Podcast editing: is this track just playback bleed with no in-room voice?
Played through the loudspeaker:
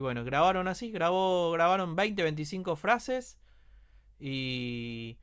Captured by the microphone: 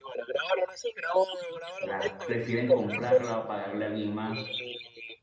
No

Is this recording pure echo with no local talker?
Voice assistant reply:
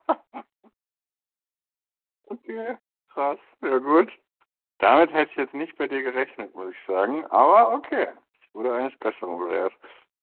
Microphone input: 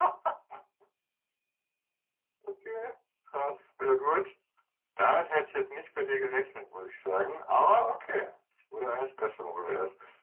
Yes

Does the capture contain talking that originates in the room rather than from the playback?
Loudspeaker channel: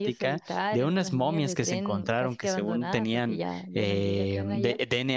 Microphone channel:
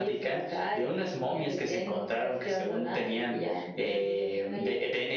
No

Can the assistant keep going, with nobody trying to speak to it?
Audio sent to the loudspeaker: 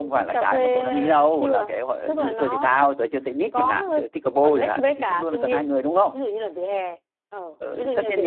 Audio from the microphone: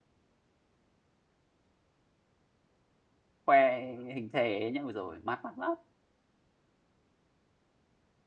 No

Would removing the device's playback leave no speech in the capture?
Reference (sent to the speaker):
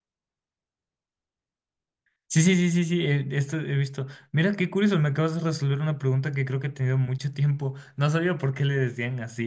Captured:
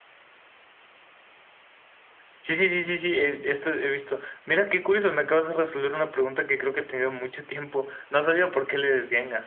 Yes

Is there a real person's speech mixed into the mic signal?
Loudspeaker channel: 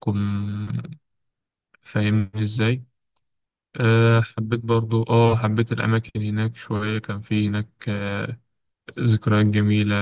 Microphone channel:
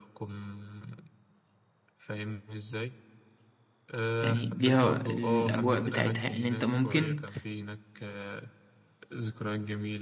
Yes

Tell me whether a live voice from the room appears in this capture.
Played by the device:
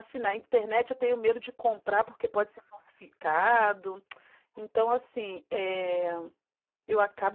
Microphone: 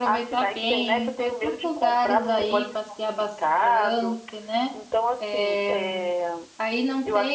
Yes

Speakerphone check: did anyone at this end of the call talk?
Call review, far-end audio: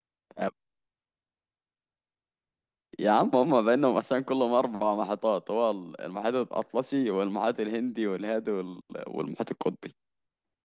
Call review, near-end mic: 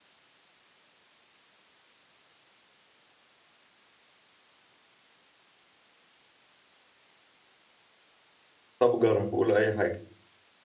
Yes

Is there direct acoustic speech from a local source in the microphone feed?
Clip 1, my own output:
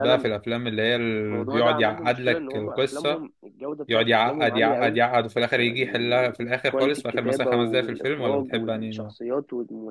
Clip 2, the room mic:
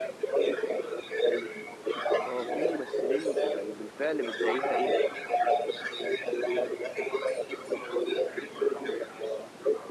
Yes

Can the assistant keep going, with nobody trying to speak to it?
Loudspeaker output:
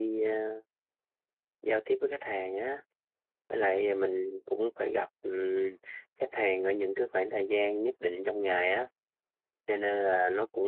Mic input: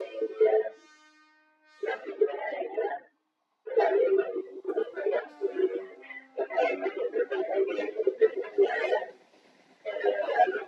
Yes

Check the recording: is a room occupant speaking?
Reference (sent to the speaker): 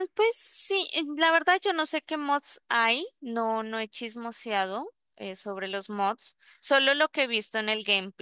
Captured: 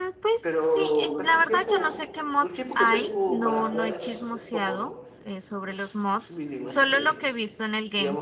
Yes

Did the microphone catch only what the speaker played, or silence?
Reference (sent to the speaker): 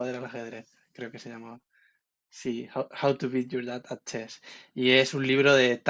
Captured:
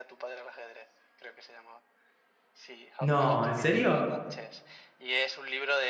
No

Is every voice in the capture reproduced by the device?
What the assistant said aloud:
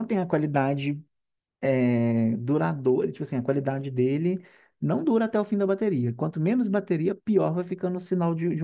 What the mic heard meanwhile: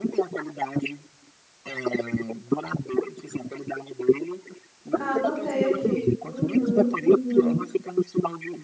No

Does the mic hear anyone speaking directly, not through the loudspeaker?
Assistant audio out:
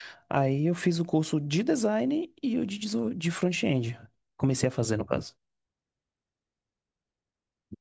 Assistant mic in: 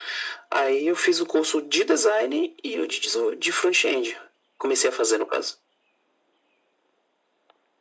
No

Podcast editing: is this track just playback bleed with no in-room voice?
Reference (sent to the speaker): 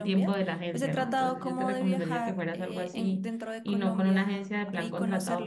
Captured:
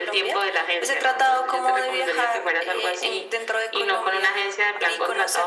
Yes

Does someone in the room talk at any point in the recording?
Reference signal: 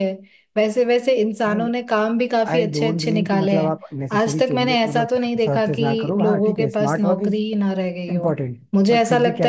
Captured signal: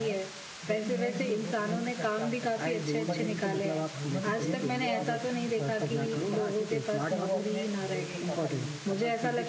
Yes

